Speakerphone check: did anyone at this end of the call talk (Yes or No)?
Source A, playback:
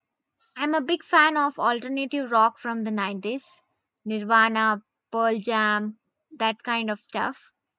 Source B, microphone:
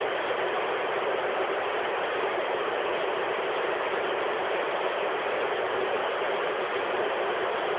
No